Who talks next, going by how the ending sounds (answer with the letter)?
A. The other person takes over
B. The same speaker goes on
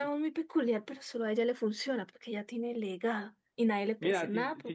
A